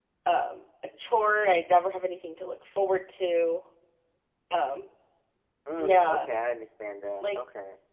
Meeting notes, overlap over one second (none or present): none